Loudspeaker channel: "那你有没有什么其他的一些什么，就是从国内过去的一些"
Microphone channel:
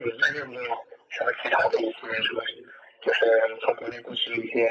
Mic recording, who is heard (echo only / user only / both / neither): echo only